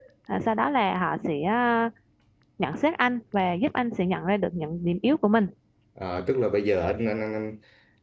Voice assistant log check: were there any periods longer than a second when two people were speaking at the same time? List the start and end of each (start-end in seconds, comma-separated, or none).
none